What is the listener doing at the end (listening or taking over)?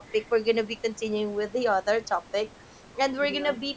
listening